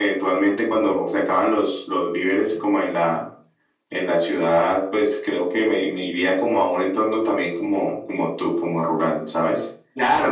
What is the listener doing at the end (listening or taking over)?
taking over